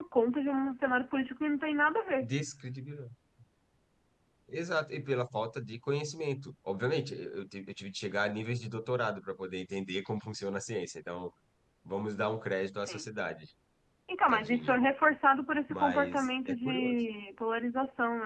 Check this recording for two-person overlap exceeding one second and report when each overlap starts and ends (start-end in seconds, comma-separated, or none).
15.7-17.0